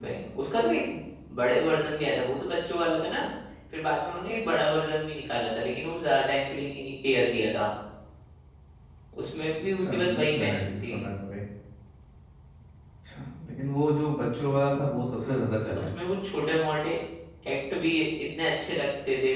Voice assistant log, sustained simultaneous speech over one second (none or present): present